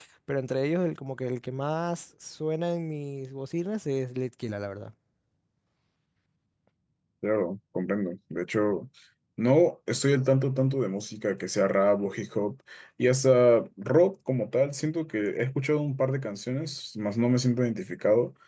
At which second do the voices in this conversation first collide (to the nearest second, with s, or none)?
none